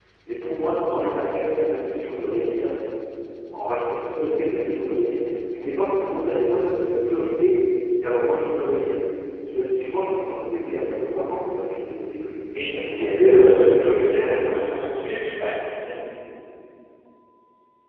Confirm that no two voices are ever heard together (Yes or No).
No